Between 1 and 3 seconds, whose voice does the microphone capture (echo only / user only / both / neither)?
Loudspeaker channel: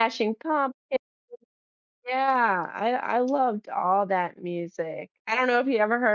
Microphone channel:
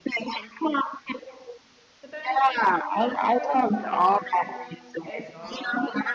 both